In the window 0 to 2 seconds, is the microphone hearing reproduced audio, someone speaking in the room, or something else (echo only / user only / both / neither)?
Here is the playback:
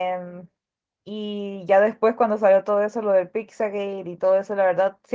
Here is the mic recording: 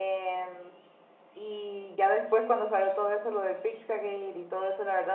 echo only